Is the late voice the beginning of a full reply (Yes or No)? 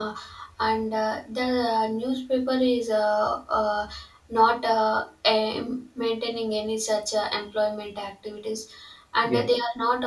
No